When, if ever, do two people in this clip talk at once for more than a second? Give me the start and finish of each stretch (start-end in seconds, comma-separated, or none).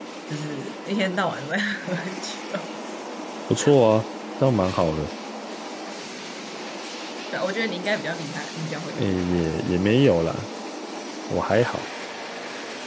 none